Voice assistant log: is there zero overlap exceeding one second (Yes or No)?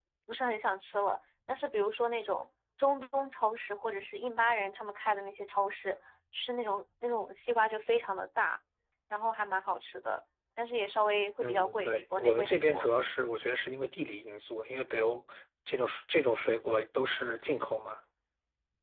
No